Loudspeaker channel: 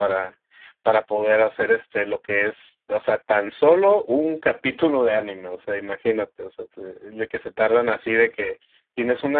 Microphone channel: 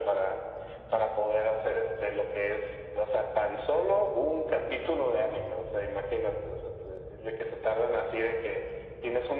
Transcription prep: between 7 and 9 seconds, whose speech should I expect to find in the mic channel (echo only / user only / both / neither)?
echo only